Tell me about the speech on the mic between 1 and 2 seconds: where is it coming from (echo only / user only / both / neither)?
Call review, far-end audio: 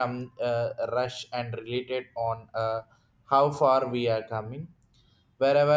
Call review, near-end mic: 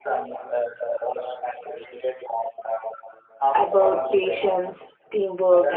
echo only